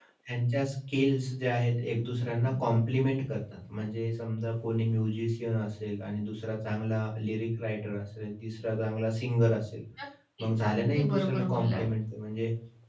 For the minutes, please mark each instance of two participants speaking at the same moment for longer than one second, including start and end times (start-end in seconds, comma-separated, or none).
10.4-11.9